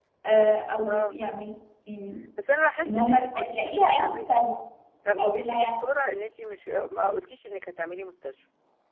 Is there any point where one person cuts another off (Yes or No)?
Yes